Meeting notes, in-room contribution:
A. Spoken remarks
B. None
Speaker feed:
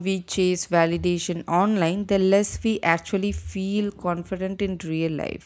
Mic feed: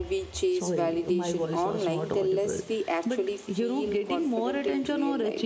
A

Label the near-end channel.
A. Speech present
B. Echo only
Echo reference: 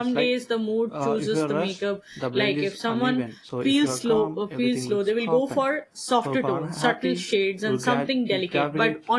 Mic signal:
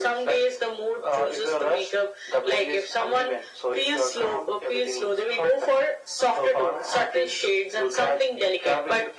B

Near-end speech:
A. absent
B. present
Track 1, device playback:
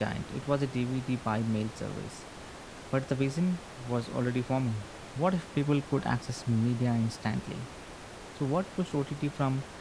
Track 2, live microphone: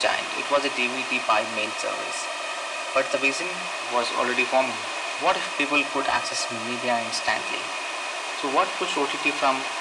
A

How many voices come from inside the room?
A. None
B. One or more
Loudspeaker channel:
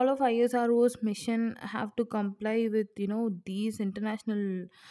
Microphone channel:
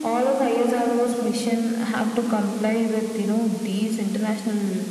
A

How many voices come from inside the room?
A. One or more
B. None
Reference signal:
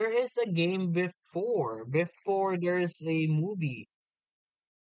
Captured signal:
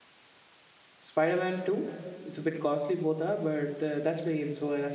A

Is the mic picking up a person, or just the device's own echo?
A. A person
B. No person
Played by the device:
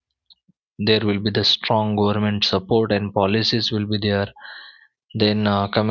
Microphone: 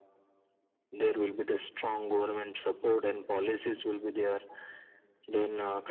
B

